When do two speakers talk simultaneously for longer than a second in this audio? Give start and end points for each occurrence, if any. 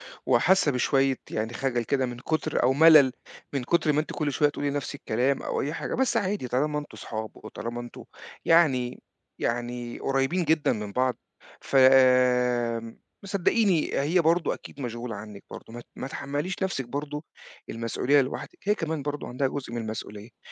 none

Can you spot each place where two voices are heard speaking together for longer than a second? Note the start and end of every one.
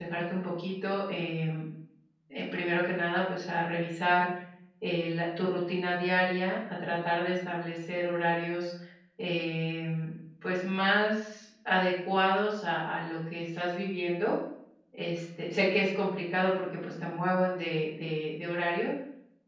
none

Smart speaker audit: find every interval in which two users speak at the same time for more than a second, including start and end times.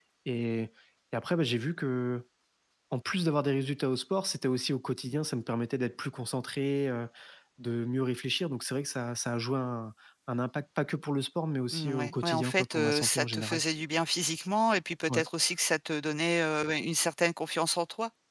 11.7-13.6

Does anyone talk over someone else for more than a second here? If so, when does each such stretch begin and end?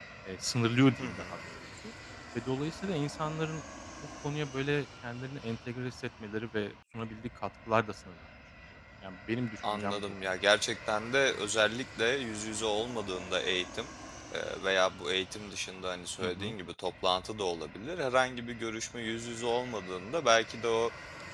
none

